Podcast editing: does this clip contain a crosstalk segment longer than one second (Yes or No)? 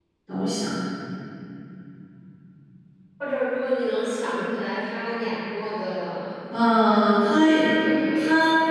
No